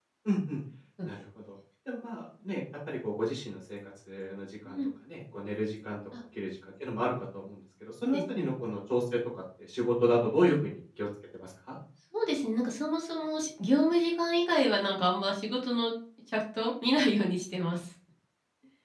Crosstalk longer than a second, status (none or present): none